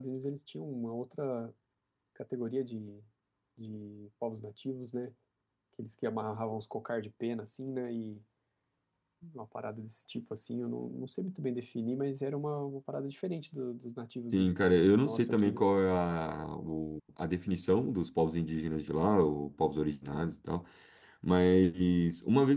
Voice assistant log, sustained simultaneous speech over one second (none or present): present